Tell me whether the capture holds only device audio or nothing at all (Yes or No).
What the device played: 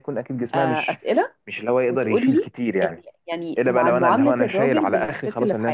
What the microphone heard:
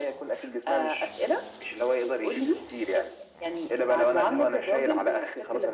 Yes